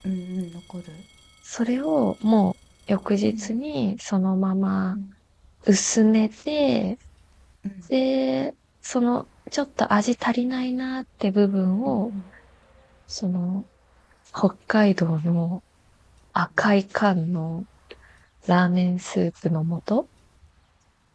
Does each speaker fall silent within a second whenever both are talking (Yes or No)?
Yes